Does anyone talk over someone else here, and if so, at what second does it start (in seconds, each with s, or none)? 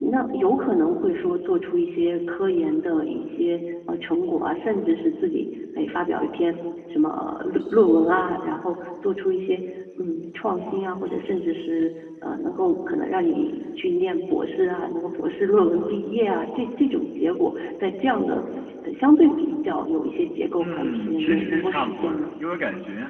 20.6 s